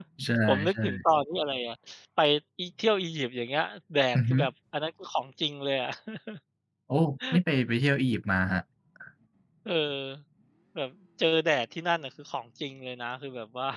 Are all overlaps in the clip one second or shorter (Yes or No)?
Yes